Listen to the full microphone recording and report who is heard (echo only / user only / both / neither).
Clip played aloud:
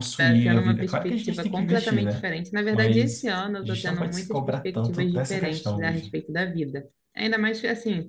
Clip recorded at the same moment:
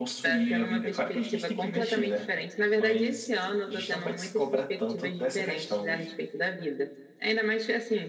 echo only